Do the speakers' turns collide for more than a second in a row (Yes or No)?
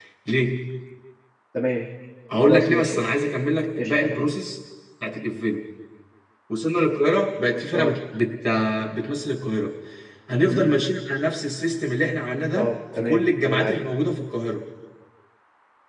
Yes